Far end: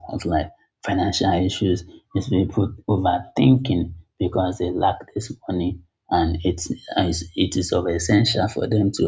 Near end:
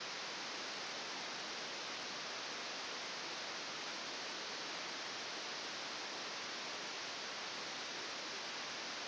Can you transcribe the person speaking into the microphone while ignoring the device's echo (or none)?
none